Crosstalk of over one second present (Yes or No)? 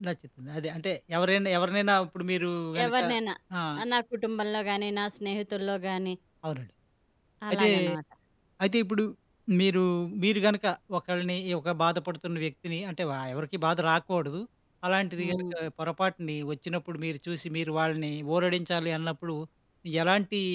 No